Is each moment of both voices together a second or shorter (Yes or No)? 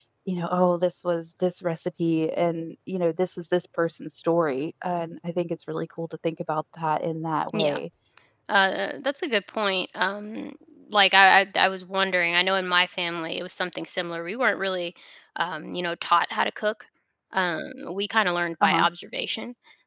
Yes